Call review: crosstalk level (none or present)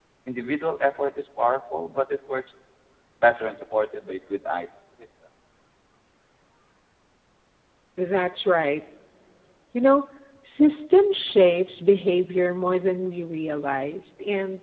none